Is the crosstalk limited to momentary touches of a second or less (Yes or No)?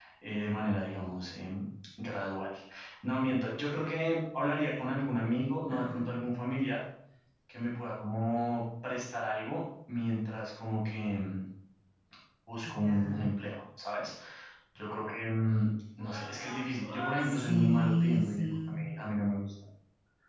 No